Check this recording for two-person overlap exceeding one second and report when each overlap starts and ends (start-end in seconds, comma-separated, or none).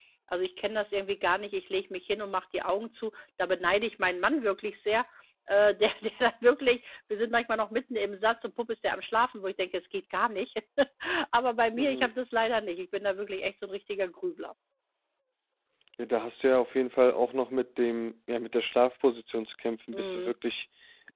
none